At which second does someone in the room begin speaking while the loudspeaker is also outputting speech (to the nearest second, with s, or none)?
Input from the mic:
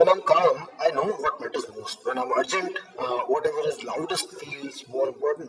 none